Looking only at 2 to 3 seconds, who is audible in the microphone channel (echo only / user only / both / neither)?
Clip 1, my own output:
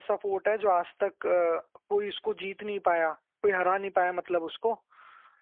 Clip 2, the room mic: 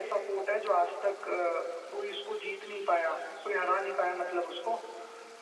echo only